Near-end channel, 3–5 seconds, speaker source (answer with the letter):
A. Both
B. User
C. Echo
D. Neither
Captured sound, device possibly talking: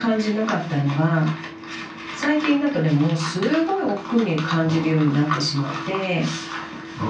C